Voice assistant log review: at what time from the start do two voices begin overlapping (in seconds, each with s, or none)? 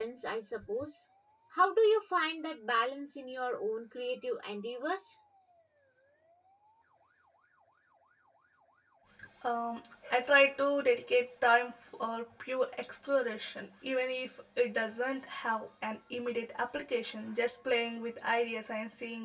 none